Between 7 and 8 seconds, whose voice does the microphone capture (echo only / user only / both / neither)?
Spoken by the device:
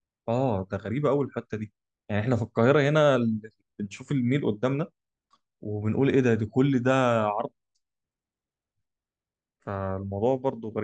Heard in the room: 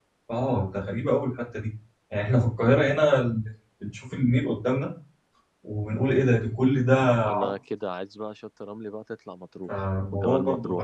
both